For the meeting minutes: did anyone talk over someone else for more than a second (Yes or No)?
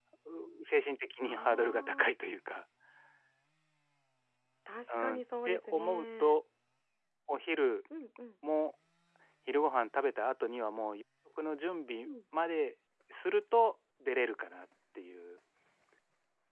Yes